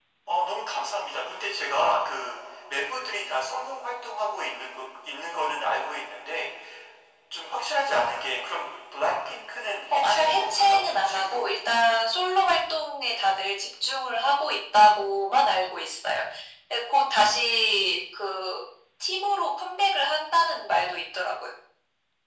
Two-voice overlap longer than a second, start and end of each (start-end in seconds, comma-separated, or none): 9.9-11.5